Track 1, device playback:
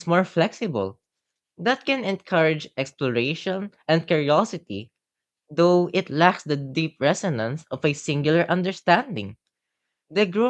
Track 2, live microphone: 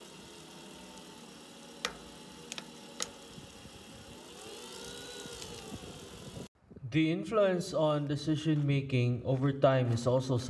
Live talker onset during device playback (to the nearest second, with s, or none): 7 s